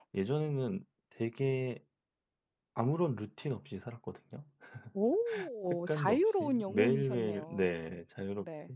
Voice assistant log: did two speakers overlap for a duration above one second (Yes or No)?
Yes